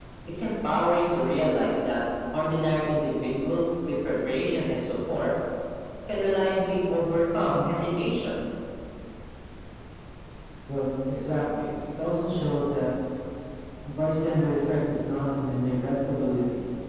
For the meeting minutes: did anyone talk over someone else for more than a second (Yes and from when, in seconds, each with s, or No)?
No